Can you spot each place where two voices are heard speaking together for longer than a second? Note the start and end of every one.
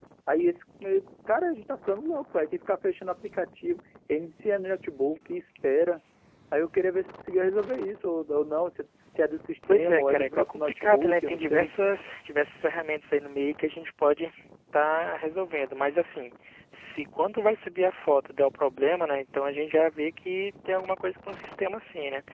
9.7-11.7

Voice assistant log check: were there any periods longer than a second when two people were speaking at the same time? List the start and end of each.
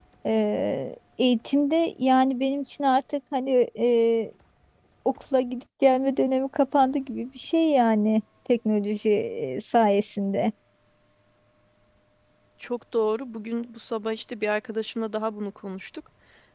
none

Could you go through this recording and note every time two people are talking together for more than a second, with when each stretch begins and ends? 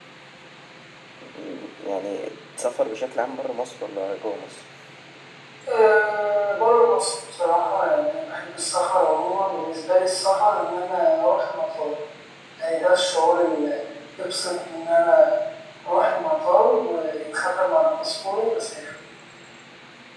none

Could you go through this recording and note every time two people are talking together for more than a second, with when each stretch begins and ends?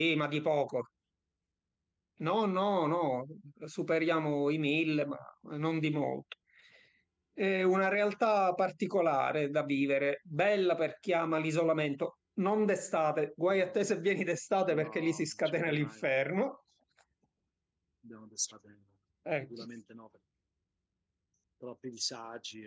14.7-15.9

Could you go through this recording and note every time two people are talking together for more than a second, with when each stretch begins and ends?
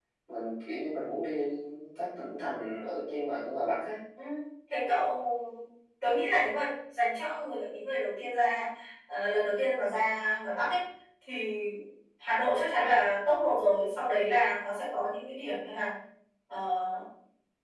none

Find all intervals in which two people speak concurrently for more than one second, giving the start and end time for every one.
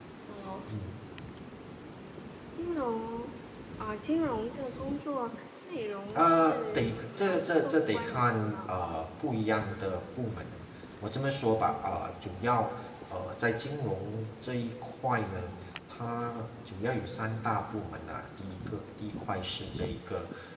6.2-8.7

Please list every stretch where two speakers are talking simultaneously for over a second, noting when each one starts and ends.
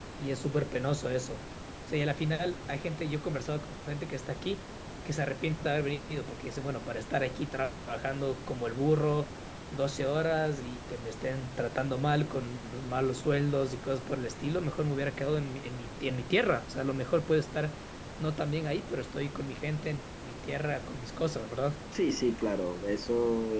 none

